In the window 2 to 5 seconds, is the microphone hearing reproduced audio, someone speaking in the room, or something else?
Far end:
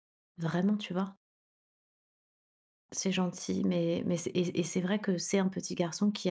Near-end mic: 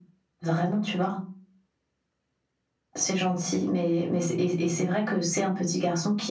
echo only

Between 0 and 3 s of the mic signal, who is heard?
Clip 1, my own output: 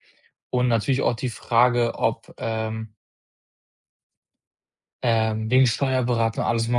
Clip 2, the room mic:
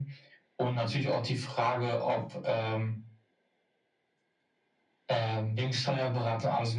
echo only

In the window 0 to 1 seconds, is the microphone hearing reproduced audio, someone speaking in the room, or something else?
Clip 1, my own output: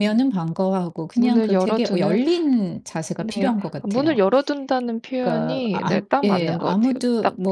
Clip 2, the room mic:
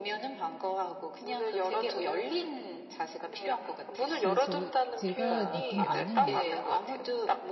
echo only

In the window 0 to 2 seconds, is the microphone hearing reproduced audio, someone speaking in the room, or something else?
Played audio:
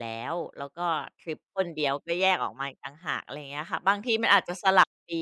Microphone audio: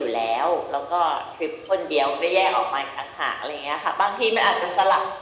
echo only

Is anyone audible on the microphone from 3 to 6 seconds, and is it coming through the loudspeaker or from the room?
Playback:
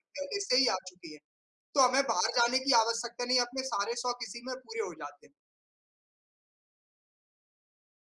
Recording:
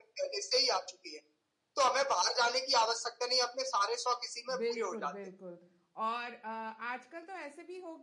both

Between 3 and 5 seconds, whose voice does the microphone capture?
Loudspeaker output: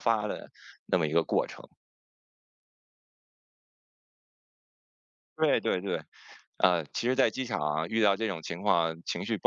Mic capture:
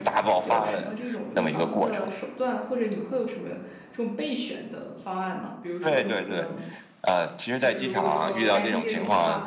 user only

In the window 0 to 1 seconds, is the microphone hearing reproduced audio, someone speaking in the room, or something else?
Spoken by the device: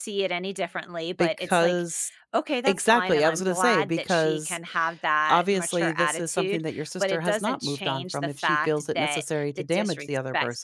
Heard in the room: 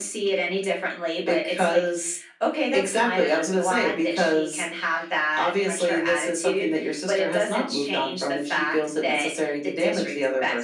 echo only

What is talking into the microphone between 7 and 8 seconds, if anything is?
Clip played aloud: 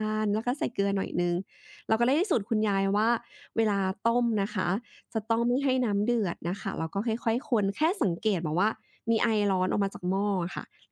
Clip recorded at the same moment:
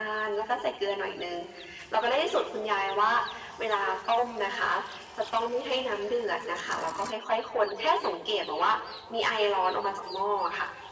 echo only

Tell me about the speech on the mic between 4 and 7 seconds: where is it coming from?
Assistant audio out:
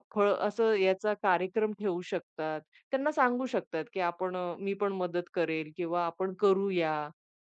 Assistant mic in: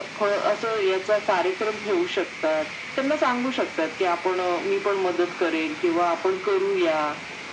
echo only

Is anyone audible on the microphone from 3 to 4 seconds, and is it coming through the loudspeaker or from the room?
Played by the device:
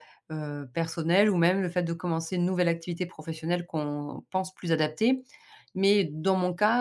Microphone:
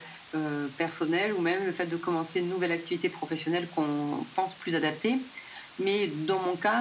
echo only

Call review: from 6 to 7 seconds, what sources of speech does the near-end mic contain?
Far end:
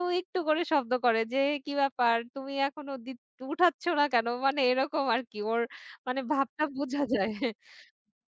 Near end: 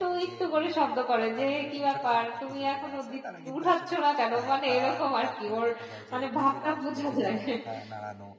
both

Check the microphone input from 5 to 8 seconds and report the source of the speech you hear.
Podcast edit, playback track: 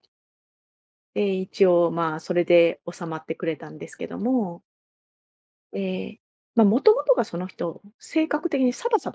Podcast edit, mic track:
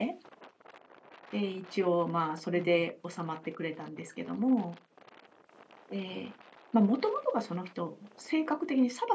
echo only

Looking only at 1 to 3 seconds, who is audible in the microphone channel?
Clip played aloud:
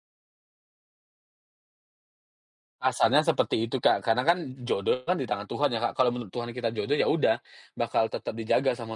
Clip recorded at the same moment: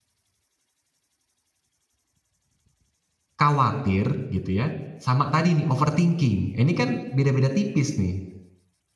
neither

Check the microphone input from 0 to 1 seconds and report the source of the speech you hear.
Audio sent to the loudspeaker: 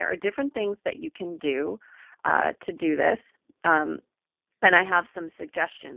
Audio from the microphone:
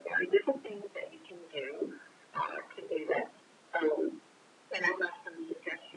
echo only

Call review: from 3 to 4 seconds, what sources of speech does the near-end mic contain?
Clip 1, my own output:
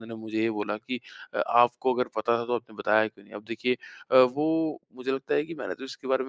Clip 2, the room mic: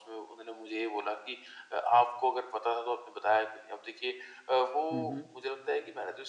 echo only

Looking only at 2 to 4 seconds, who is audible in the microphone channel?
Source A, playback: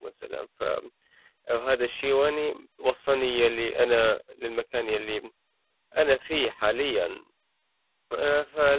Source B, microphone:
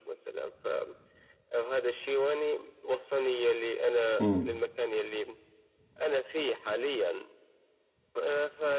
echo only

